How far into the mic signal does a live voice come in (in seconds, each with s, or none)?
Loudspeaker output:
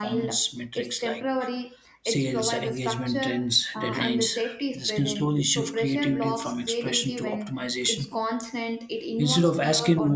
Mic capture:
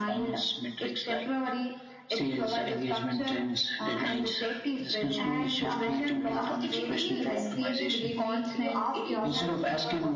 5.2 s